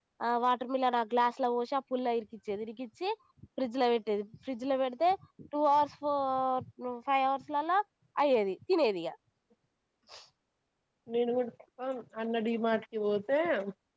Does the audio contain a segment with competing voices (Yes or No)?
No